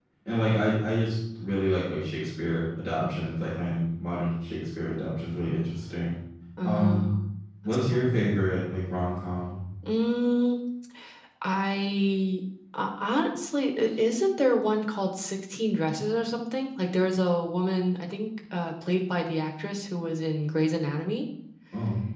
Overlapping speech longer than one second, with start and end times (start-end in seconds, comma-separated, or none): none